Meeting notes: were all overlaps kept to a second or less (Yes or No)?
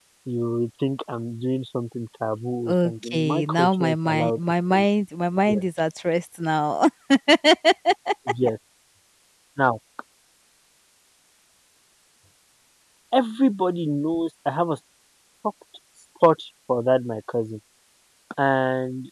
No